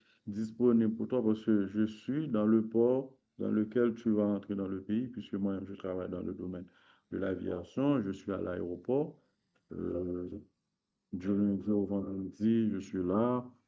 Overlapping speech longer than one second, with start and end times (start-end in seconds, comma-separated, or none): none